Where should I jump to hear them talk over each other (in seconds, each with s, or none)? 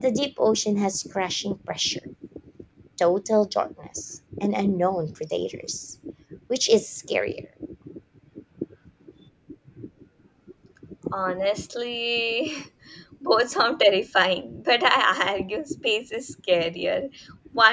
none